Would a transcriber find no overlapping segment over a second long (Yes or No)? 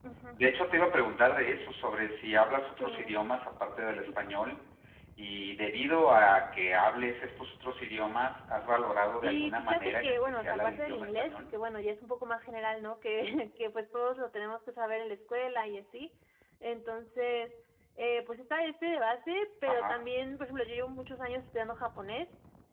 No